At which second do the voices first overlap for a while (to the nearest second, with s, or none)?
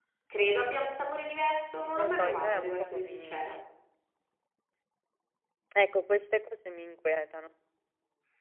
2 s